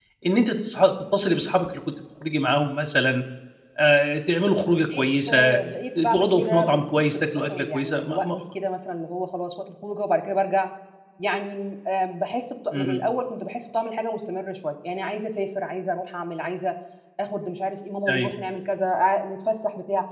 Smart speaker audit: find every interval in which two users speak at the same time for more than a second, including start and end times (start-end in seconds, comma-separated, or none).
6.1-8.3